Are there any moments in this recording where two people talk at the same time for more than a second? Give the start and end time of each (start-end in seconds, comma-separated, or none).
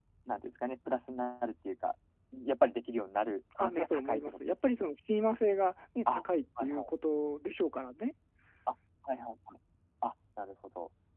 3.6-4.9